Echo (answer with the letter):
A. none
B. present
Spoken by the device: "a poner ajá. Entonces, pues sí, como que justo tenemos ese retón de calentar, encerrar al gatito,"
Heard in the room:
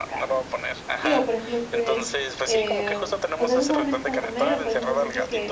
B